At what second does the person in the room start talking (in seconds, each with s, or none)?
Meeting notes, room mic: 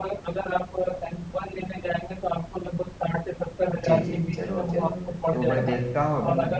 3.8 s